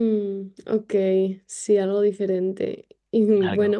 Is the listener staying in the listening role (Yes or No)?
Yes